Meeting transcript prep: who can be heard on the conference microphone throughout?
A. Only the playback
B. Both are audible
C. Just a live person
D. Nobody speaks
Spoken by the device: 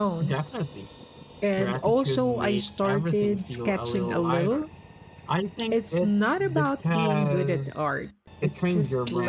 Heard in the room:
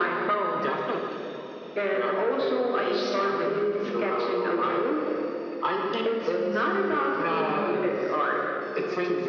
A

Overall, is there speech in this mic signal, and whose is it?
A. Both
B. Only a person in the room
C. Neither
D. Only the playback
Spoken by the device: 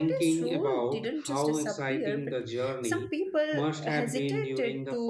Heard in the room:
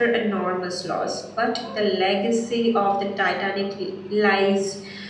B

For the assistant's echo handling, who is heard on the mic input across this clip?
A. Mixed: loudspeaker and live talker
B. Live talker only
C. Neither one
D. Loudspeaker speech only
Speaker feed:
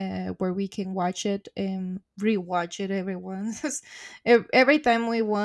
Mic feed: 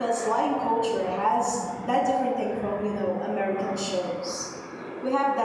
B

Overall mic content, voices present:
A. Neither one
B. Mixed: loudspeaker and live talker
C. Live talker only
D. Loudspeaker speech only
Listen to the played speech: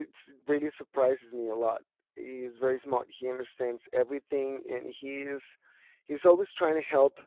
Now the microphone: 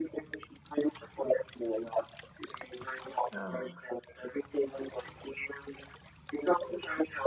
B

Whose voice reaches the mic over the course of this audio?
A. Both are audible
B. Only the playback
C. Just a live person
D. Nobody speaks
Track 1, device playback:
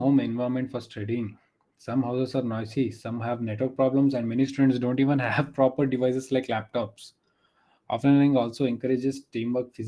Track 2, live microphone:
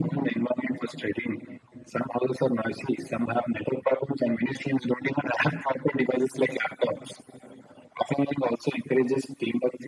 B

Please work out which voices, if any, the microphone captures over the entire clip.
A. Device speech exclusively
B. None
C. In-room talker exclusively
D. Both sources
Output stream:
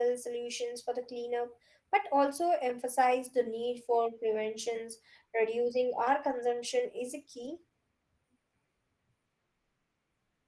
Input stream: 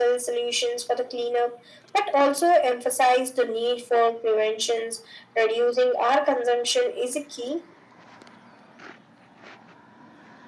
A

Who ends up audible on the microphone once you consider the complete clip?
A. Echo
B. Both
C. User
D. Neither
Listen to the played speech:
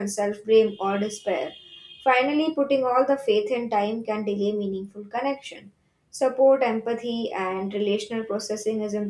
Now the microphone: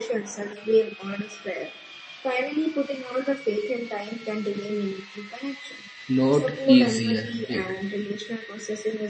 B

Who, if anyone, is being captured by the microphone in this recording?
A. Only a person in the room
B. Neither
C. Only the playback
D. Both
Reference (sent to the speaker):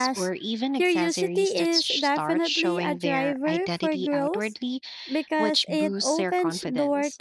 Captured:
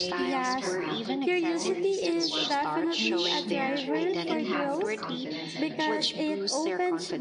D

